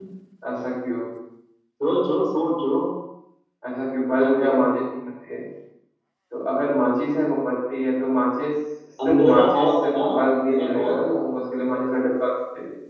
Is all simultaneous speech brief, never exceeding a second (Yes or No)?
No